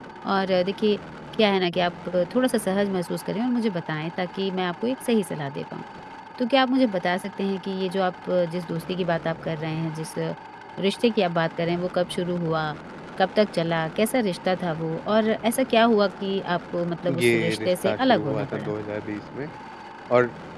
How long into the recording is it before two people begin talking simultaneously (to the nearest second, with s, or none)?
17 s